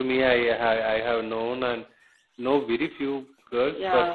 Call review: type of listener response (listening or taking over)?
listening